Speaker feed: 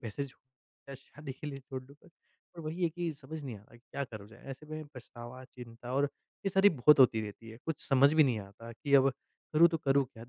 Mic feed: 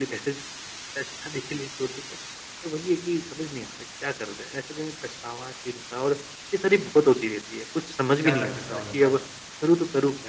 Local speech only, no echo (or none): ज़्यादा ख़र्चा हो जाता है।